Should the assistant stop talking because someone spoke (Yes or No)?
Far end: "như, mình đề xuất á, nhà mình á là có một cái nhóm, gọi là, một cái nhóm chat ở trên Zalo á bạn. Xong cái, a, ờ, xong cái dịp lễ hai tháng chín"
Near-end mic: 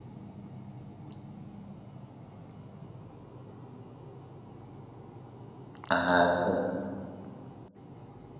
Yes